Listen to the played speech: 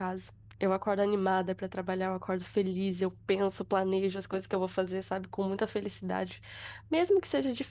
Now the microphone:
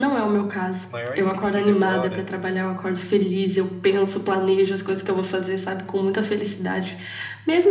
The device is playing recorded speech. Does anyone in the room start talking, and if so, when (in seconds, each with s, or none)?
0.8 s